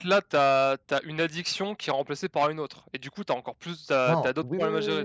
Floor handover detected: Yes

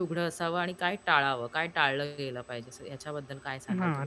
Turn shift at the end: Yes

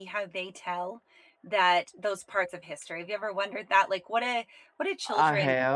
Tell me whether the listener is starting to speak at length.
No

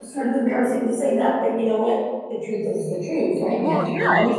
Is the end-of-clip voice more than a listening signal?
Yes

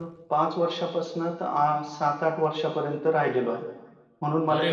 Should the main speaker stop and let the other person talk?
Yes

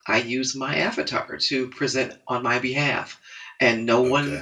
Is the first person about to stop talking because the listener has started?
Yes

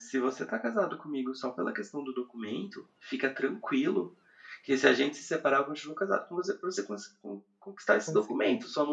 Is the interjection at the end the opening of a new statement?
No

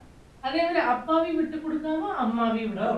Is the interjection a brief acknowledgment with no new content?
No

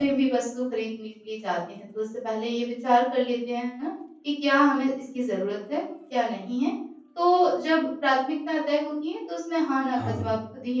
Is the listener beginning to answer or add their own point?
No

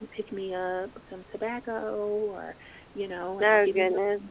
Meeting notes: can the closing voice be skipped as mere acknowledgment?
Yes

